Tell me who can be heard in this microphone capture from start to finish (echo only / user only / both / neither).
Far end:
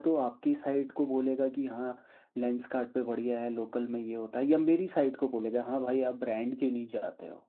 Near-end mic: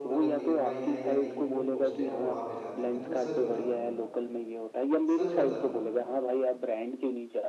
both